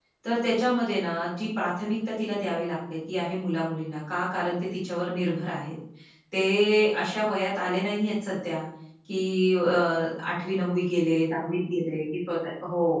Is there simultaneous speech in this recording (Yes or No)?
No